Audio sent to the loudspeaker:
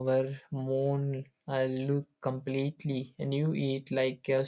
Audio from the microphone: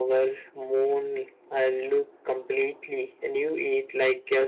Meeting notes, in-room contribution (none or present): none